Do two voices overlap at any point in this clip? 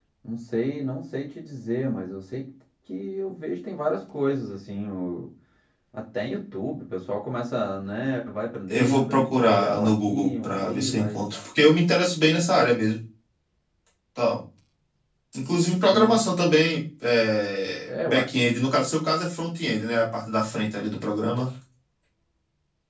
Yes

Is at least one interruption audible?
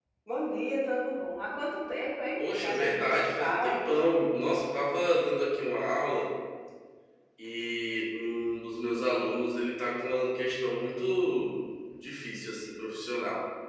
Yes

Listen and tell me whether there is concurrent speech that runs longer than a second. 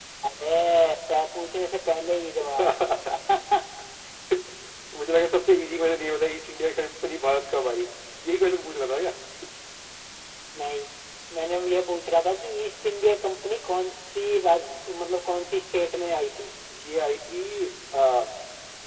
No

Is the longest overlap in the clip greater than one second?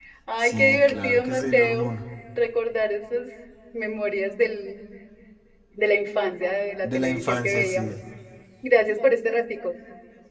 Yes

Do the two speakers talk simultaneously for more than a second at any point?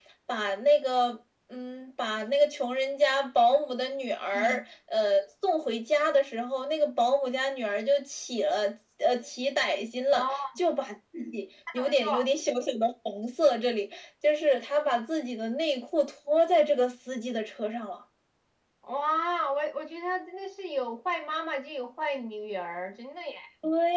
No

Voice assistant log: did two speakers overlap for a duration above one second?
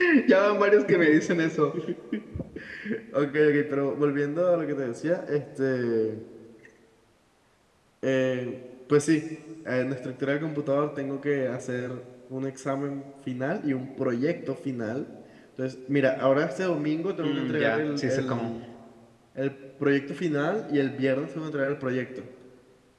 Yes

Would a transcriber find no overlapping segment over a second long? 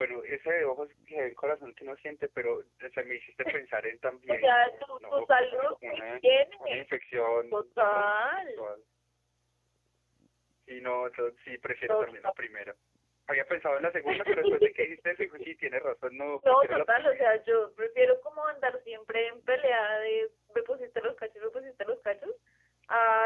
No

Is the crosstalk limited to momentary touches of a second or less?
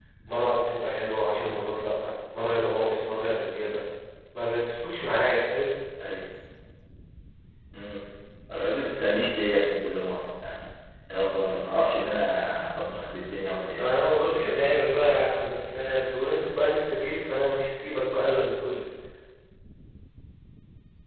Yes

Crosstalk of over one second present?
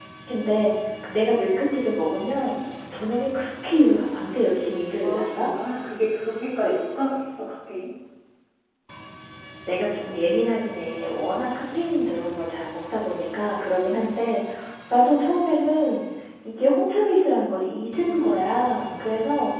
No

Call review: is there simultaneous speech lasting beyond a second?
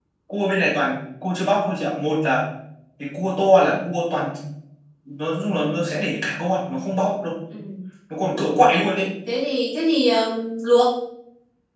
No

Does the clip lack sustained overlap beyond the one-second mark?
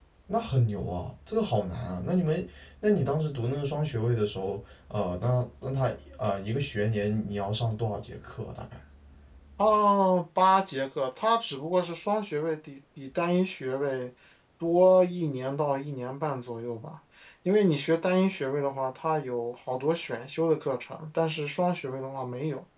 Yes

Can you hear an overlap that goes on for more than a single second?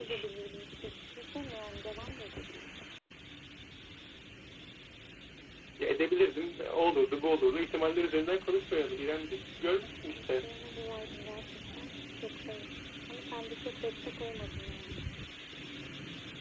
No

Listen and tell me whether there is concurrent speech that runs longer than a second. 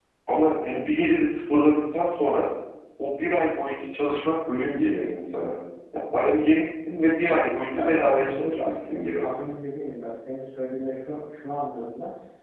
Yes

